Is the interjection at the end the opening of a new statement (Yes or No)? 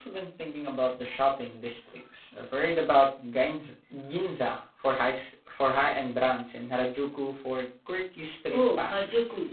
Yes